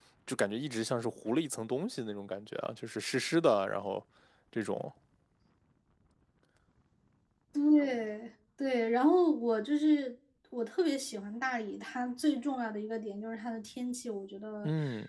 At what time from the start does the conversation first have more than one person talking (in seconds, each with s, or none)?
none